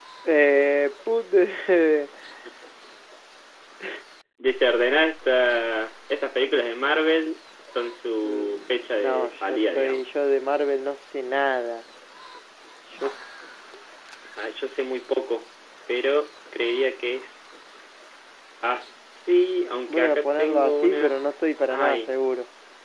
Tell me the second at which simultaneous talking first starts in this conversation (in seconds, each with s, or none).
8.2 s